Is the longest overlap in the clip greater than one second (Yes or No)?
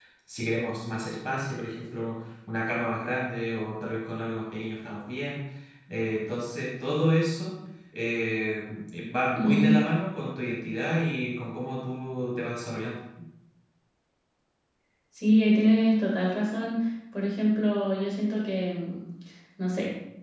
No